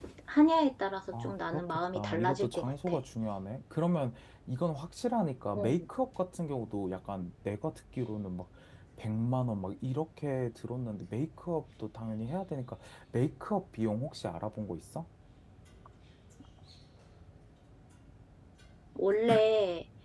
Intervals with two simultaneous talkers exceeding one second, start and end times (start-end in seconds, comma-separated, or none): 1.2-3.0